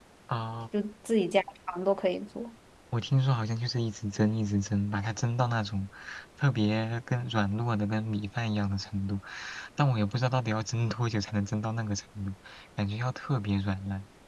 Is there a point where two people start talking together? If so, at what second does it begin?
none

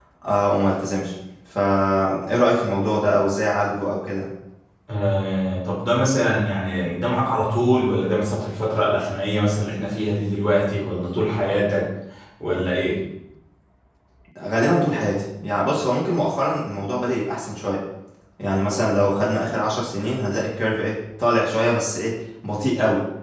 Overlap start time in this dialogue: none

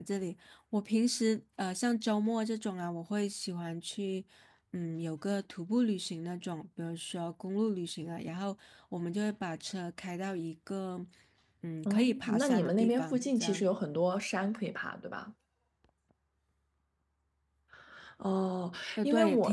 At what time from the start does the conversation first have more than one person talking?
11.8 s

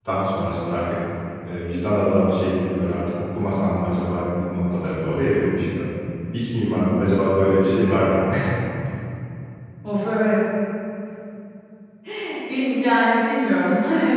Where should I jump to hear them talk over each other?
none

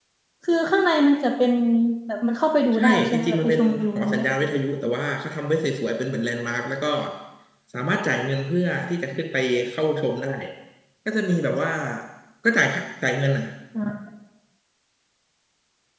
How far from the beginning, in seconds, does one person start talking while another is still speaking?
2.7 s

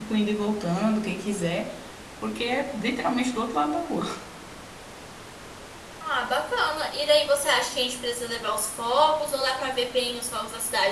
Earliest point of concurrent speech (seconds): none

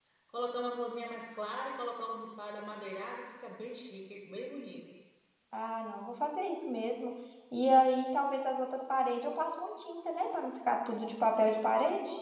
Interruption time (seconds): none

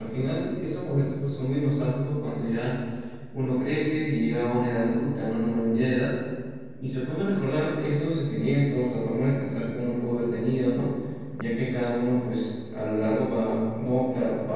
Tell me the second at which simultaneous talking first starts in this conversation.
none

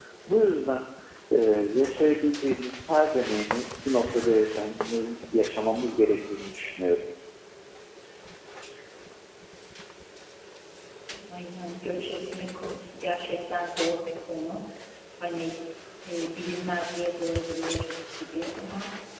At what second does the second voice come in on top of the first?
none

